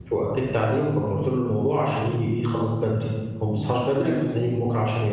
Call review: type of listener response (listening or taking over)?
listening